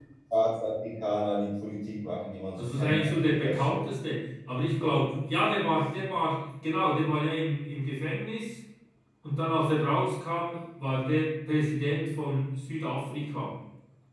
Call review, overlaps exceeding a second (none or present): present